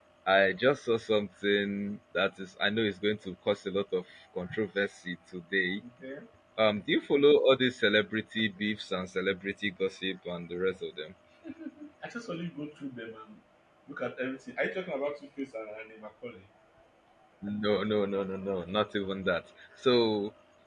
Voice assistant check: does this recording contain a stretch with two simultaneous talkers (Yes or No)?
No